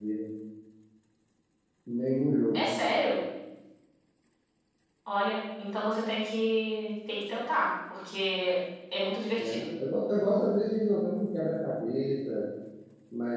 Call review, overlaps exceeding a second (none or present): none